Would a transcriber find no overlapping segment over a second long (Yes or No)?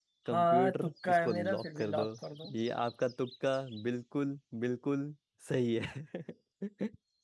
No